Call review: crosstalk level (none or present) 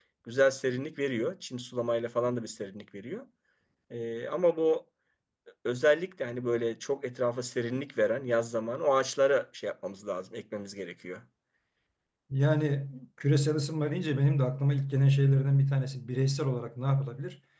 none